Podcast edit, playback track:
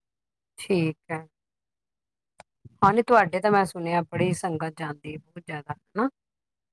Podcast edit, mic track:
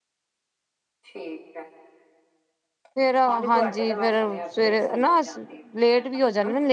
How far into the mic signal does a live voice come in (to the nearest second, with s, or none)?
3 s